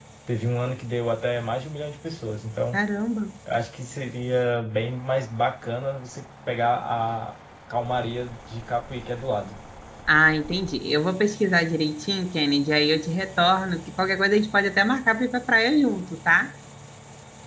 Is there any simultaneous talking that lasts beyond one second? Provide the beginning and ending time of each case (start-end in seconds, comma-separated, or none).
none